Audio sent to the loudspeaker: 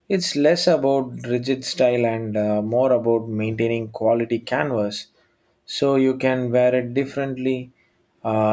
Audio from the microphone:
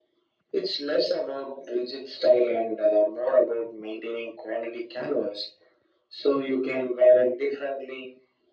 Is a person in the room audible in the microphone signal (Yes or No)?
No